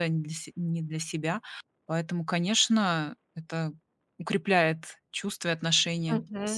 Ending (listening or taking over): taking over